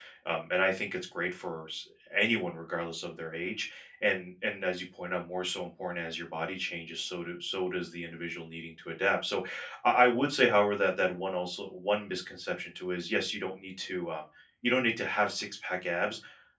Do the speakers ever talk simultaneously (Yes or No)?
No